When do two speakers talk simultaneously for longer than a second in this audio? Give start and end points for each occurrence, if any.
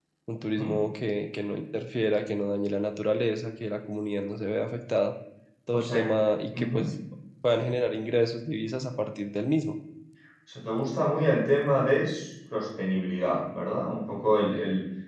none

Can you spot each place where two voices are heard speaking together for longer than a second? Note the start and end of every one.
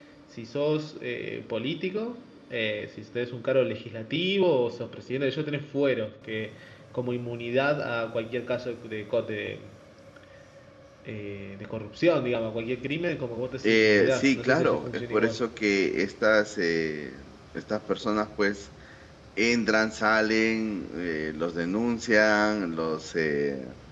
13.6-15.4

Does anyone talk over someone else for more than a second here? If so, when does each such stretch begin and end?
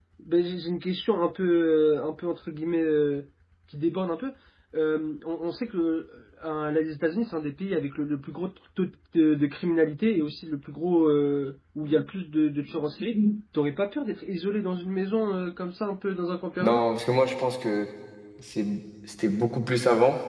none

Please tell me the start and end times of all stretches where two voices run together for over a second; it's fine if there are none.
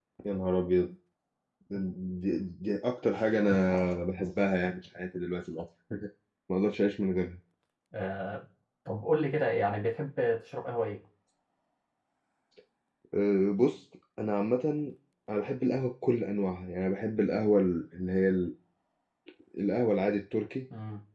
none

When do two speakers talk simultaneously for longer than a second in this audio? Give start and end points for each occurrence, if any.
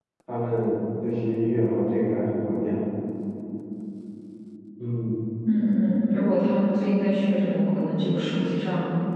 none

